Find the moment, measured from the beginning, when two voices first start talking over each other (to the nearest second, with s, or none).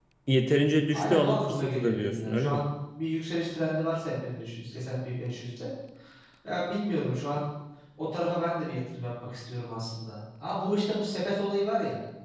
1 s